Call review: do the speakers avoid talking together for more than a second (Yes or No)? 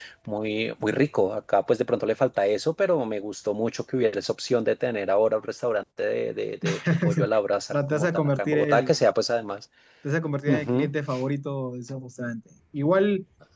No